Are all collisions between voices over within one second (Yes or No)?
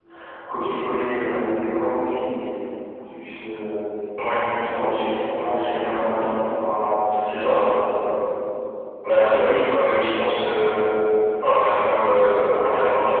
Yes